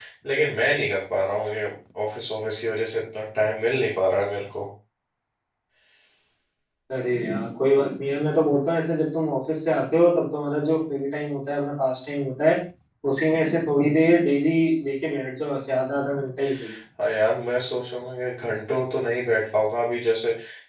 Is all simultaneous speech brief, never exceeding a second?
Yes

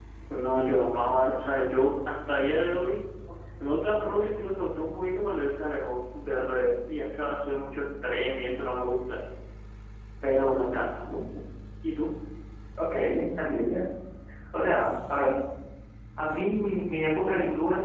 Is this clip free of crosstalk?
Yes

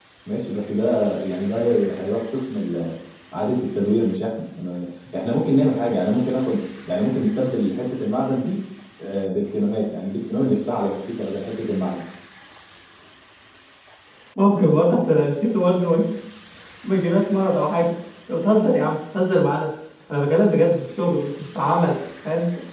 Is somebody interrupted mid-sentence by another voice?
No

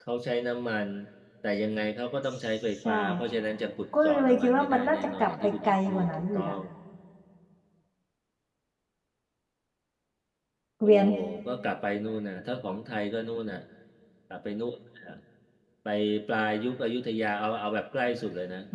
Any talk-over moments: Yes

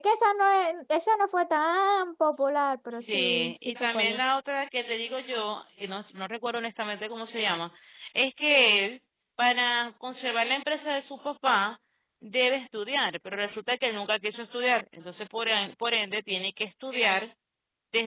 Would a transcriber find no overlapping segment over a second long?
No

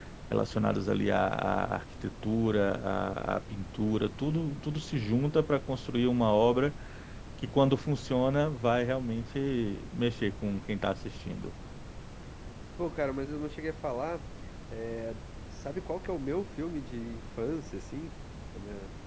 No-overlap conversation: Yes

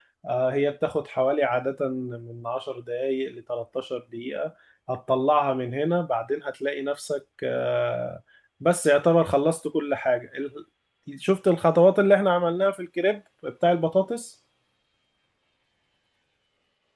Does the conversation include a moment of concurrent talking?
No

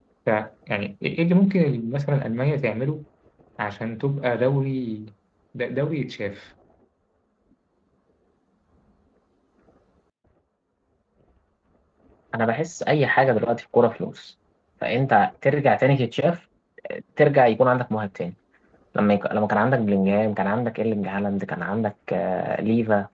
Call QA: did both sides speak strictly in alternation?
Yes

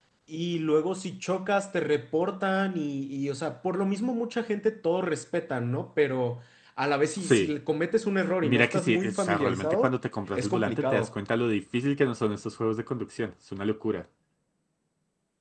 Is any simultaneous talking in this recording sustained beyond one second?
Yes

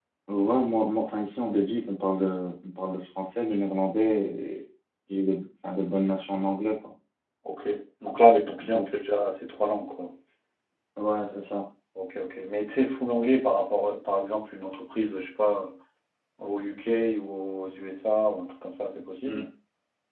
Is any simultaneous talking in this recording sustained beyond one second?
No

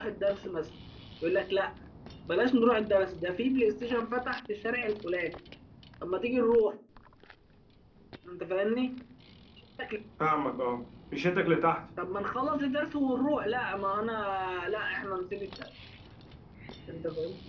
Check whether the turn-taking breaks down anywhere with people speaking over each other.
No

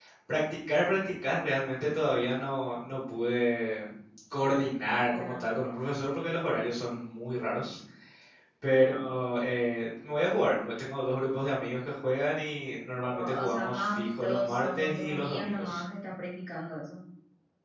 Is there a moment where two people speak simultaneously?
Yes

